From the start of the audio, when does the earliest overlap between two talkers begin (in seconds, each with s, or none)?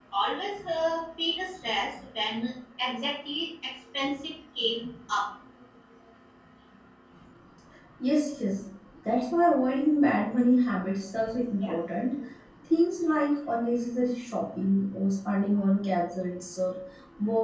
none